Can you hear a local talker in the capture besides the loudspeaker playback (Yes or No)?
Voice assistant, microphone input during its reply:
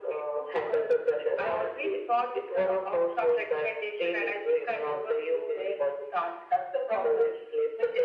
No